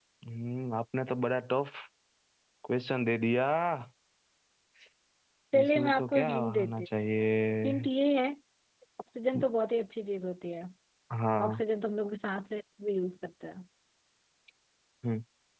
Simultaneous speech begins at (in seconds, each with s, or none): 5.6 s